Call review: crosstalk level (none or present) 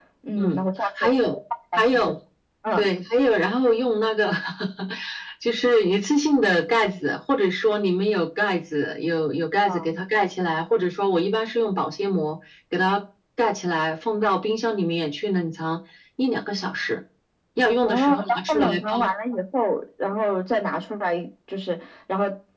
present